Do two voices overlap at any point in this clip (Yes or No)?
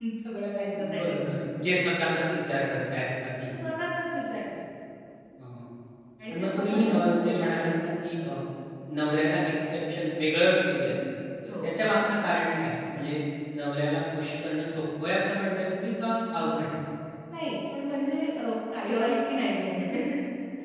Yes